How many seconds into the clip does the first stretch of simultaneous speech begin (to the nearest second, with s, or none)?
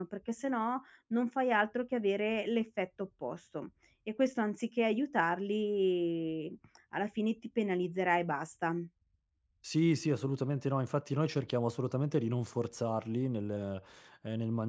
none